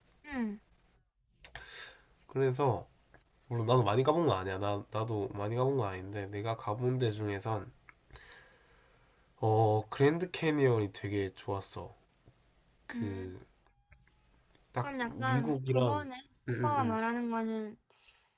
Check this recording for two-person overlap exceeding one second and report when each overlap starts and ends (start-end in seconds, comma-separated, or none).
14.8-16.1